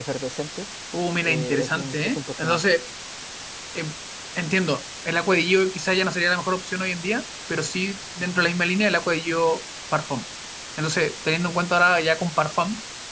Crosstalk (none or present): present